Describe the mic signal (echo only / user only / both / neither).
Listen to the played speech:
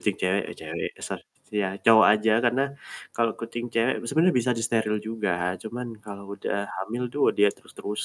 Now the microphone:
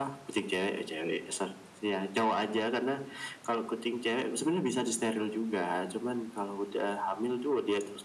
echo only